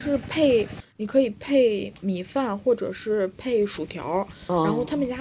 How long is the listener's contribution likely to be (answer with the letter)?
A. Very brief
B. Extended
A